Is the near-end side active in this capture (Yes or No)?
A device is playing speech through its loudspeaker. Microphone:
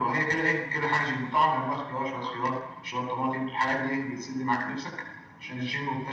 No